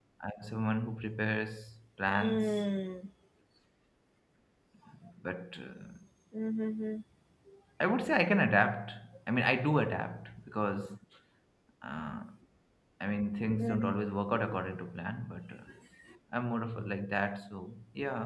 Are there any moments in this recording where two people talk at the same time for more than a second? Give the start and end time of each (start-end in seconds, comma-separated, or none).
none